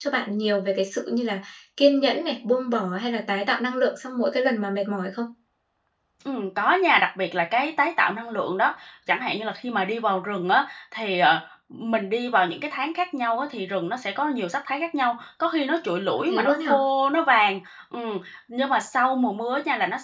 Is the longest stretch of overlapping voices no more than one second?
Yes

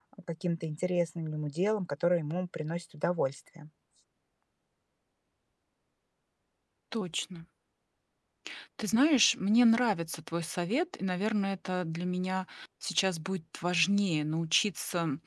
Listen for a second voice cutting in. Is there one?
No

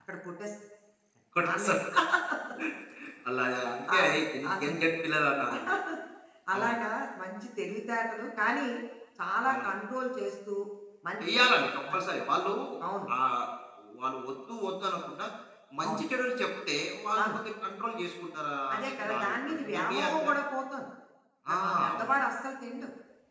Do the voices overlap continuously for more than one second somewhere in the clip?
Yes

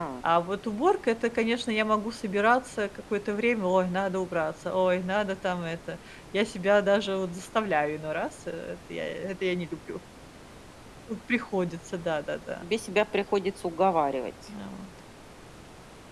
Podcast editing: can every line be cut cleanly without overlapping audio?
Yes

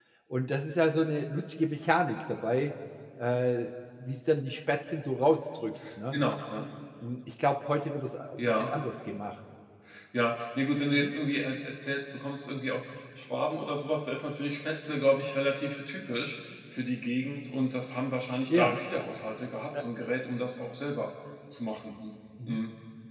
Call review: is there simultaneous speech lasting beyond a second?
No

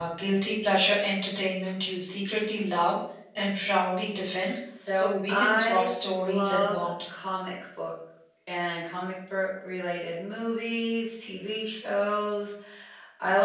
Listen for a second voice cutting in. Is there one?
Yes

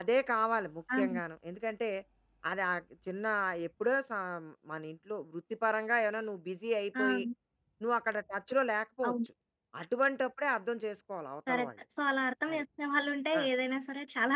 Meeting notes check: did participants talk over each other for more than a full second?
No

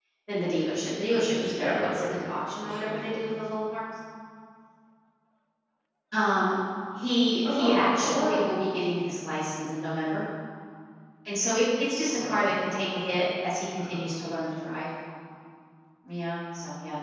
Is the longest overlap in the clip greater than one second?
Yes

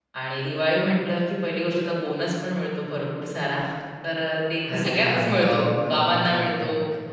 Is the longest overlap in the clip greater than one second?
Yes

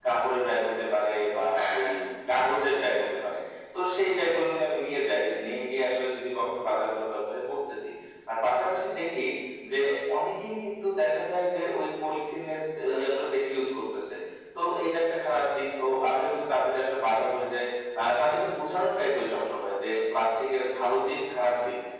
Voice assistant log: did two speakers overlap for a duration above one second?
No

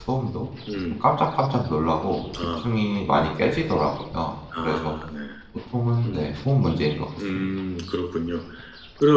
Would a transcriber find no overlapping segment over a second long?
Yes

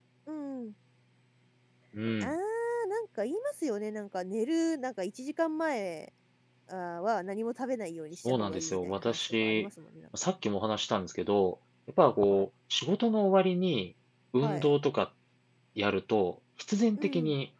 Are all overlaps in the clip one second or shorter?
No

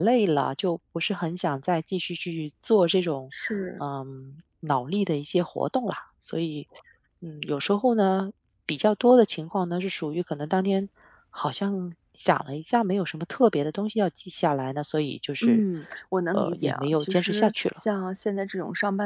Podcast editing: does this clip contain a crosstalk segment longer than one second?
Yes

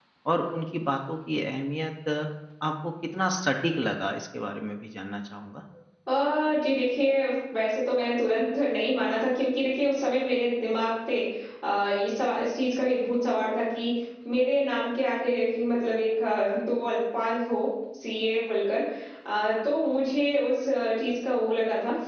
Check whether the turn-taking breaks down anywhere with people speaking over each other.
No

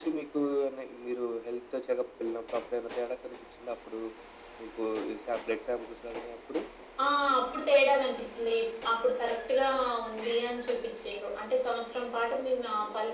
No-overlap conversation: Yes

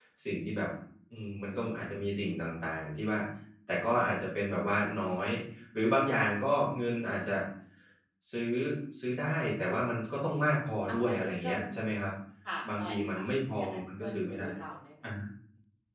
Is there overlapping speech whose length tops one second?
Yes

